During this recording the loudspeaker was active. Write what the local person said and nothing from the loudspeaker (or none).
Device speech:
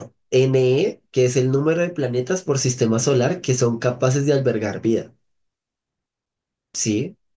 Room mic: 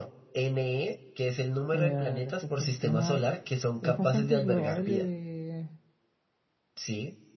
eh, respecto al tema, es bastante probable de